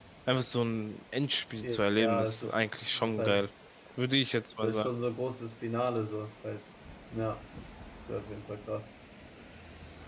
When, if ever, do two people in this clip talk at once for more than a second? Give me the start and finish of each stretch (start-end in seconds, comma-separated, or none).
2.0-3.5